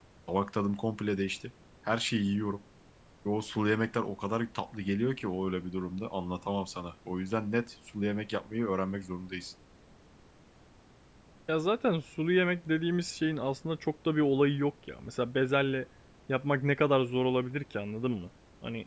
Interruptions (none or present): none